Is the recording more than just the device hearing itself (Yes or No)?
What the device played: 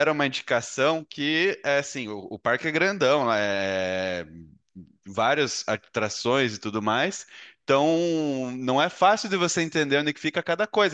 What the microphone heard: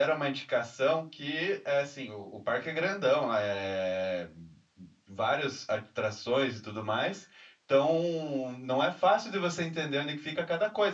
No